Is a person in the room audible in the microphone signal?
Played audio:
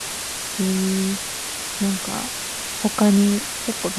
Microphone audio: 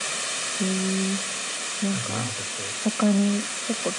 Yes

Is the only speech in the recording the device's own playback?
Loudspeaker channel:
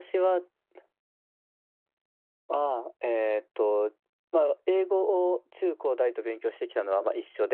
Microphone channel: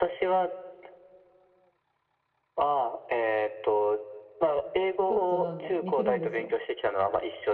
No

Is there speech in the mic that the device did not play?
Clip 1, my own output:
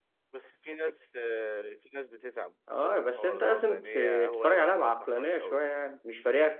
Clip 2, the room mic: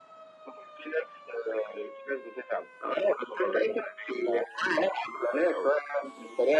No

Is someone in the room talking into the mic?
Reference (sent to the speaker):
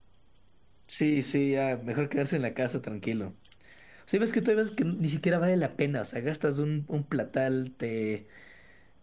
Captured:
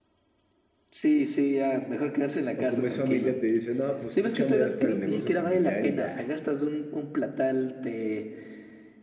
Yes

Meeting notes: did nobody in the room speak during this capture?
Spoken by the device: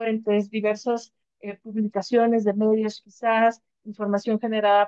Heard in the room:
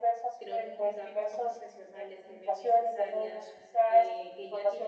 No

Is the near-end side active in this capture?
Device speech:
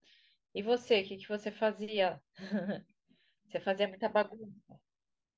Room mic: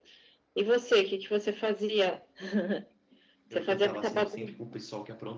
Yes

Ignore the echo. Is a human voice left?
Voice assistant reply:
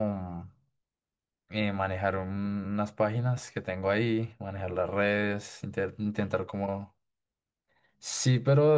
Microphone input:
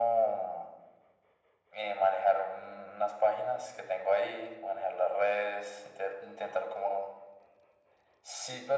No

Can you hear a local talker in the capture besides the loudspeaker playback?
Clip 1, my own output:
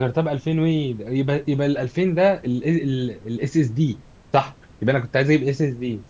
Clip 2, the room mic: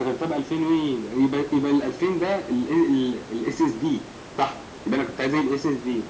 No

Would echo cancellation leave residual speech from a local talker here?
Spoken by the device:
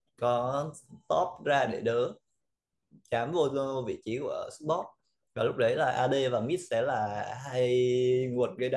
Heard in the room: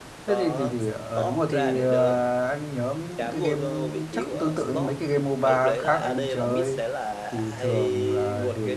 Yes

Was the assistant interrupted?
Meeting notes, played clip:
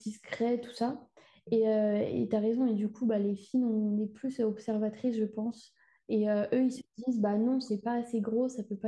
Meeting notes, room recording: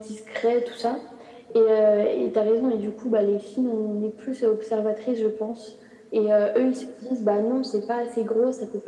No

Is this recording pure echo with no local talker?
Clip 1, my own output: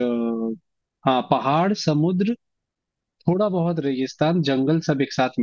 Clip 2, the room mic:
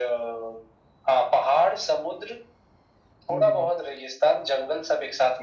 No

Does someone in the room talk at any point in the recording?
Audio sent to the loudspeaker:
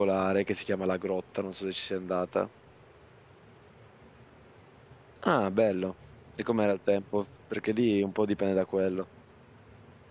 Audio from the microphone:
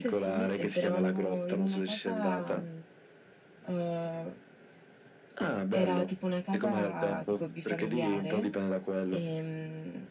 Yes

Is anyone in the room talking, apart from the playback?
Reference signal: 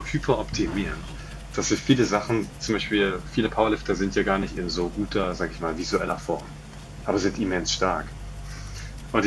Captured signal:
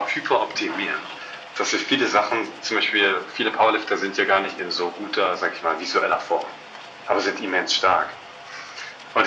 No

